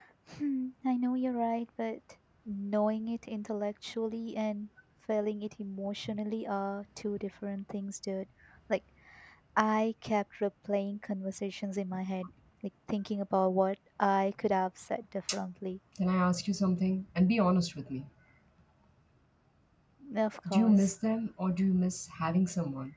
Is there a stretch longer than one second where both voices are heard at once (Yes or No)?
No